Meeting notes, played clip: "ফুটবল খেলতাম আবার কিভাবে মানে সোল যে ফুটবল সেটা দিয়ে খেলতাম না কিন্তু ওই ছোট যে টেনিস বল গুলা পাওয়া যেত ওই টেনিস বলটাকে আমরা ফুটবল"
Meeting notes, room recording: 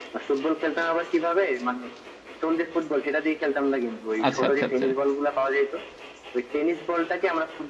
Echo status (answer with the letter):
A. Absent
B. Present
B